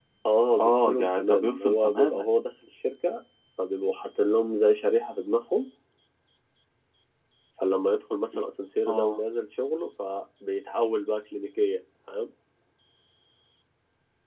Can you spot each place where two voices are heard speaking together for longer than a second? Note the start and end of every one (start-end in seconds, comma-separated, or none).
0.6-2.2